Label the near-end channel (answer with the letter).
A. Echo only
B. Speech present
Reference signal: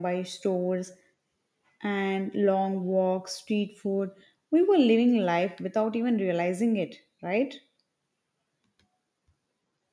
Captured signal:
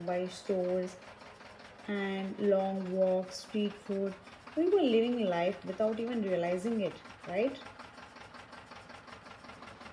A